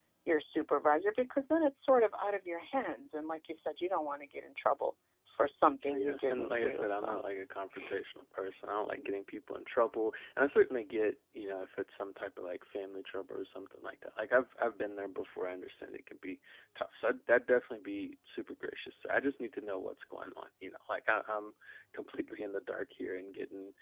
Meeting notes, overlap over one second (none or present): present